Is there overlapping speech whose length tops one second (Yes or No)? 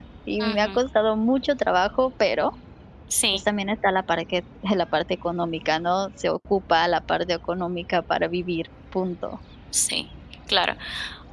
No